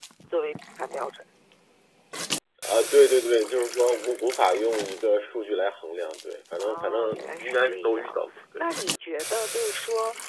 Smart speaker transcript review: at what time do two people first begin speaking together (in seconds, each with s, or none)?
6.6 s